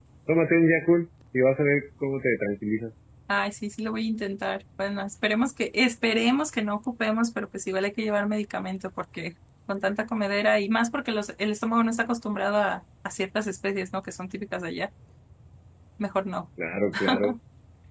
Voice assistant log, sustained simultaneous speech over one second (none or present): none